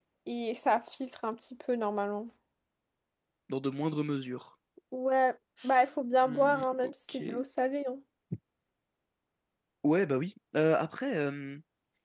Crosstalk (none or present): present